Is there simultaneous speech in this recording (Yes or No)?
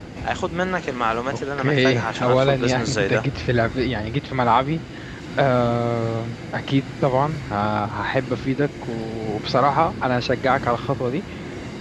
Yes